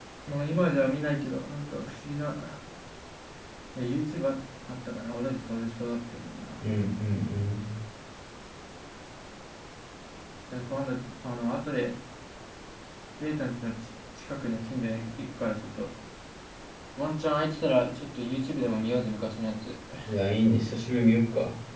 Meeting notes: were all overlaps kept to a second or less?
Yes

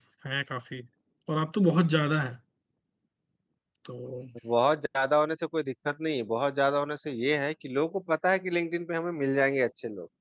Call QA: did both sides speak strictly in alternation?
Yes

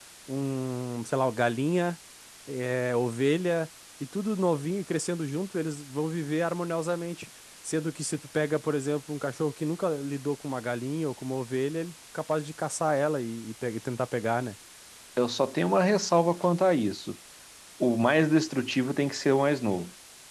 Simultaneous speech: No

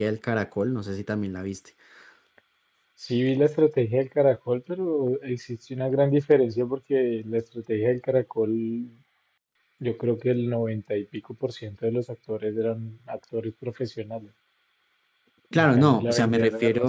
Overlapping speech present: Yes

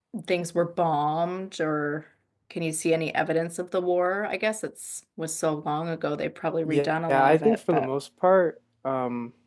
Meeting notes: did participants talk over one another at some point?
Yes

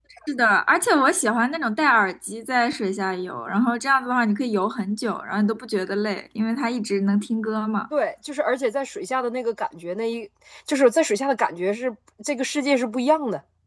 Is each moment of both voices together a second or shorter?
Yes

